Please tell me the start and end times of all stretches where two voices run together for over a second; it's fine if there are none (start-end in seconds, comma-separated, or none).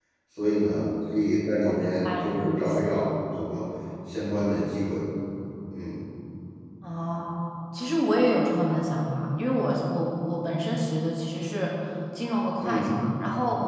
1.6-2.9